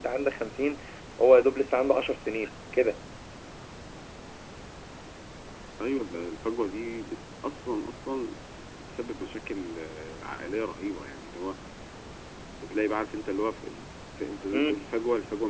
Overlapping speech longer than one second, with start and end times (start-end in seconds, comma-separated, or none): none